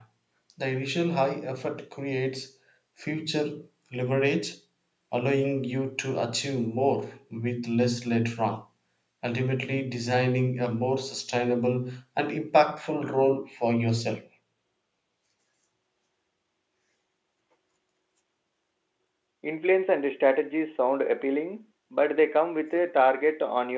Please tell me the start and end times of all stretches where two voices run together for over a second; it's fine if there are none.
none

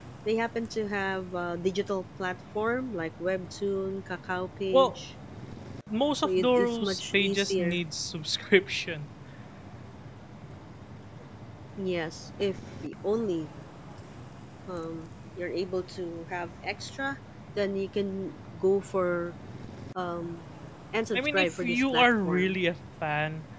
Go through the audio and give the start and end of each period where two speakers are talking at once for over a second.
6.2-7.8, 21.1-22.6

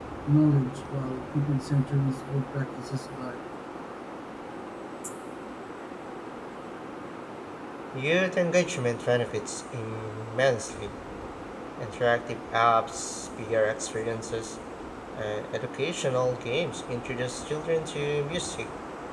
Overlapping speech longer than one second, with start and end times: none

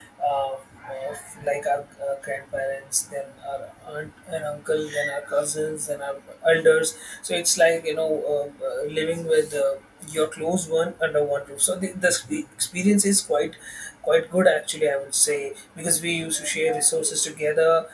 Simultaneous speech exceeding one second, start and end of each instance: none

